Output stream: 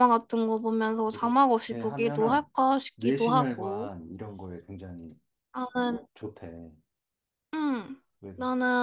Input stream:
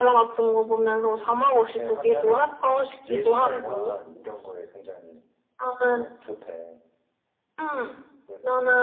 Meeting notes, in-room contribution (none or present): none